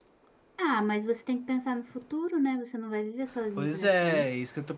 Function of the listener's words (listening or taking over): taking over